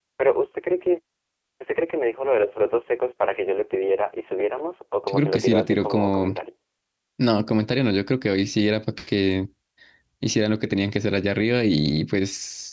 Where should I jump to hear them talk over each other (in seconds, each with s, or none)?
5.1 s